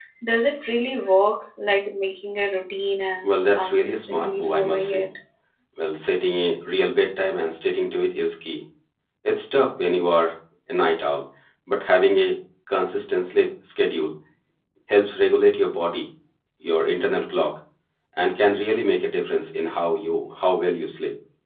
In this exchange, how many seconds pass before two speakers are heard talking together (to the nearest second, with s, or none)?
3 s